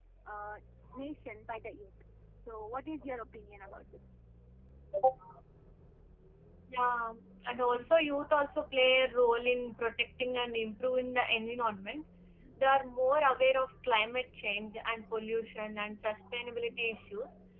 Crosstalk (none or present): none